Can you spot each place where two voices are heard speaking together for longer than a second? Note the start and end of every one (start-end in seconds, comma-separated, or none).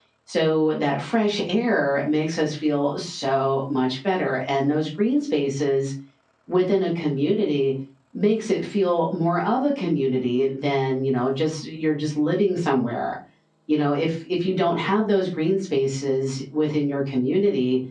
none